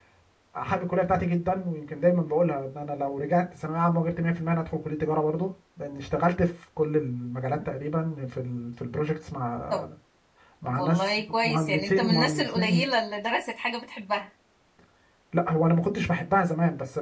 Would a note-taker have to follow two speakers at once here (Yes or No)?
Yes